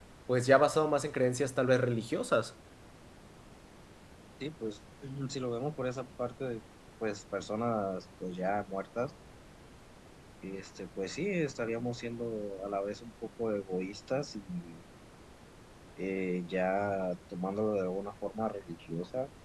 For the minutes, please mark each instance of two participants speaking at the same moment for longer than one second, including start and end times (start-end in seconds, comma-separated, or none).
none